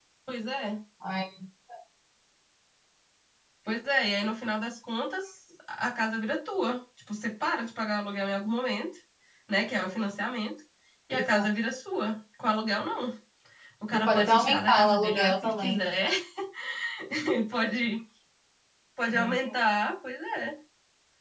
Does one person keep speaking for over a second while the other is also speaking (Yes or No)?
Yes